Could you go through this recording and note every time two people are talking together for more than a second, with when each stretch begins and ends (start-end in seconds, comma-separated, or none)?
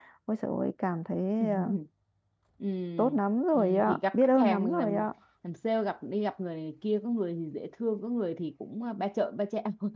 3.5-5.0